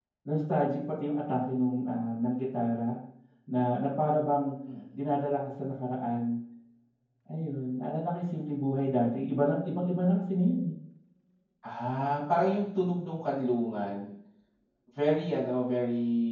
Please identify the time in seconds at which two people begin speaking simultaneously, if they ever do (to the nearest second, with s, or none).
none